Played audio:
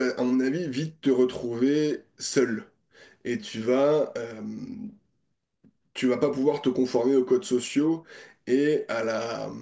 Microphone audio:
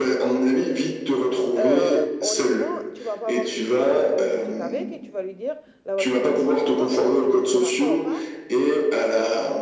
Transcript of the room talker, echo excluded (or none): Euh, honnêtement, tu vas pas avoir des discussions philosophiques avec et tu vas lui dire la voiture démarrera pas on- et on n'ira pas au parc,